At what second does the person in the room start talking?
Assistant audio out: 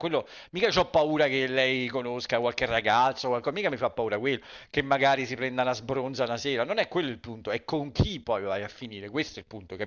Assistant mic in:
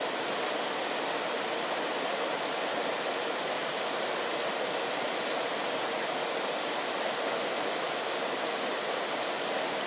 none

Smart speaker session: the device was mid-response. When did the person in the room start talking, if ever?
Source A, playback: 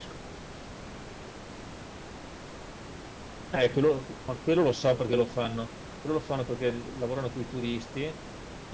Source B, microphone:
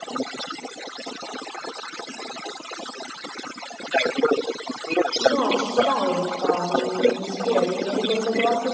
5 s

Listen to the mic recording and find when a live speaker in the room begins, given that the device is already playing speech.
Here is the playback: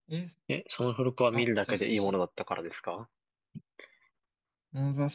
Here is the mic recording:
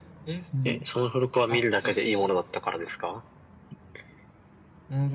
1 s

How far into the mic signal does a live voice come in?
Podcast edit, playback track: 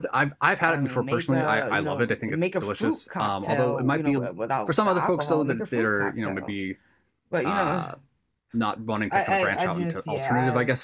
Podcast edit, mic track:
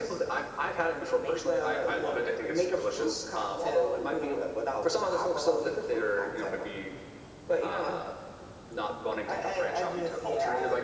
none

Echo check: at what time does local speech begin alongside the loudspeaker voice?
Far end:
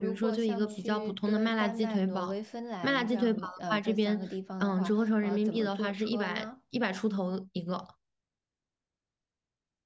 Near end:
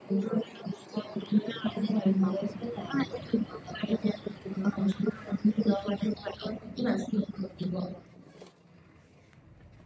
none

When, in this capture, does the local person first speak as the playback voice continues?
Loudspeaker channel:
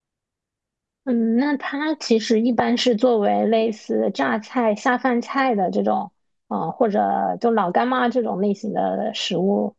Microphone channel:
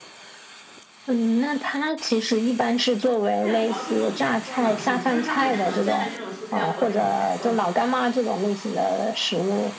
3 s

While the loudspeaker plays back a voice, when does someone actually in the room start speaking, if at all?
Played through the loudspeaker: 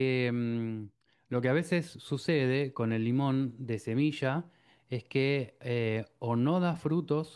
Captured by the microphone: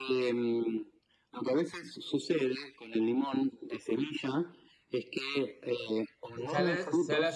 6 s

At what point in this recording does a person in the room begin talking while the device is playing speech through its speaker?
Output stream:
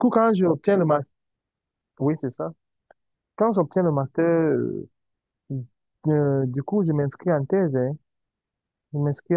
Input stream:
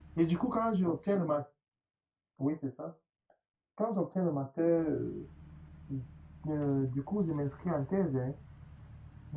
none

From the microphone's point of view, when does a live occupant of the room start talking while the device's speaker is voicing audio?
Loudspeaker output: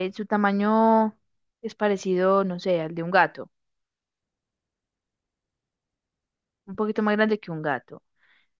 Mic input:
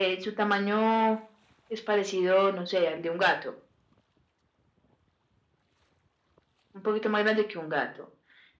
none

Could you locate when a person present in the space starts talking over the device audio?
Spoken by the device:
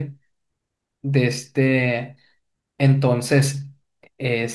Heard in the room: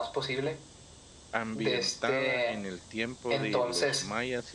1 s

